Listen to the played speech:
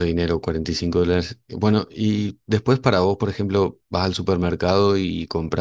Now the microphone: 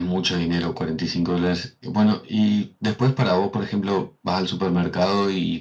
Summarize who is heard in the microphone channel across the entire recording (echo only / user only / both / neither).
echo only